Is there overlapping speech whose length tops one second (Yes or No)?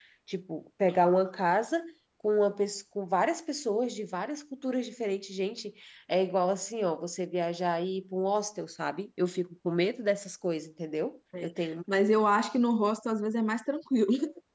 No